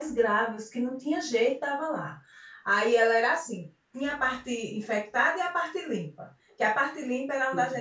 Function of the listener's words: listening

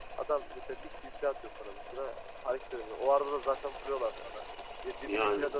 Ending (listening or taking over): listening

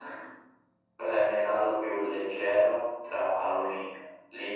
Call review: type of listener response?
listening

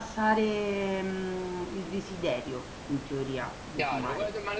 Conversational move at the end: taking over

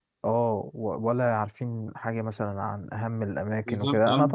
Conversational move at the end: listening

